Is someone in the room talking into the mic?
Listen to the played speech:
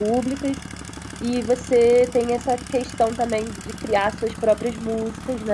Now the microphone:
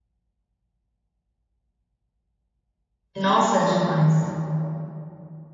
Yes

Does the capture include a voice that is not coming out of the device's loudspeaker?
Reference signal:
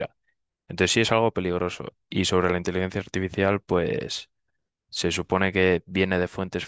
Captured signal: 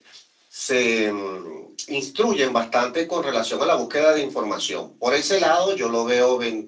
Yes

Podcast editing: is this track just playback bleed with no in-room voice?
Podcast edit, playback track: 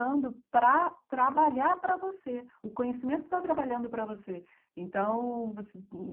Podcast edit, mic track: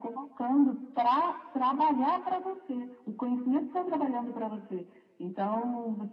Yes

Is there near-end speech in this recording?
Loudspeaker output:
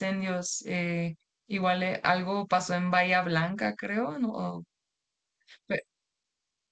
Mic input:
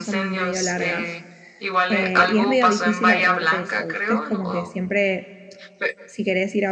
Yes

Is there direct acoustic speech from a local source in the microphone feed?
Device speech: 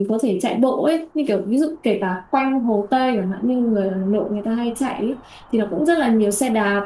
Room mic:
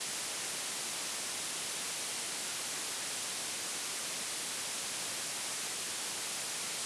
No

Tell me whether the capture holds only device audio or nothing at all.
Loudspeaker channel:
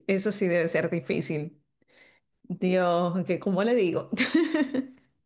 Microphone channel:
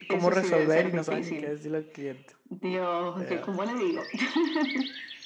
No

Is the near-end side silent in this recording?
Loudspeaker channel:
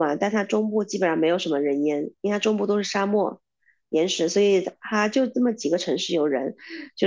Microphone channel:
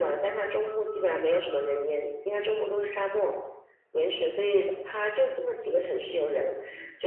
Yes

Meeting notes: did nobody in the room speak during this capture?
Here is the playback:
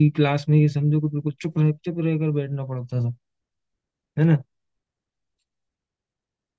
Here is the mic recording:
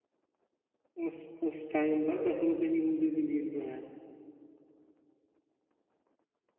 No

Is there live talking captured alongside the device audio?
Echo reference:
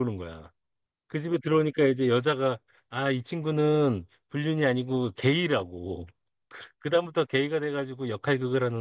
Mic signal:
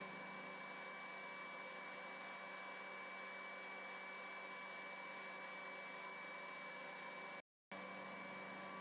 No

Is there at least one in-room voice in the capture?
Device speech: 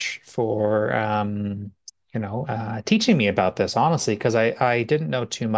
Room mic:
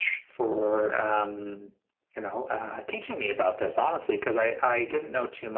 No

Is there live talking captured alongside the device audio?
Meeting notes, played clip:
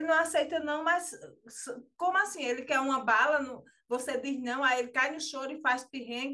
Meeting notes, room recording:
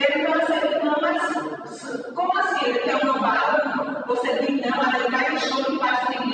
No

